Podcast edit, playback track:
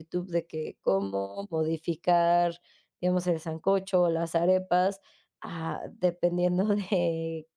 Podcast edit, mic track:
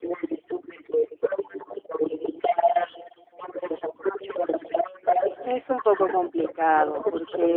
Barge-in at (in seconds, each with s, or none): 5.4 s